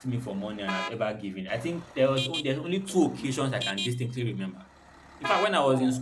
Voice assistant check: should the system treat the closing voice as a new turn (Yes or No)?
No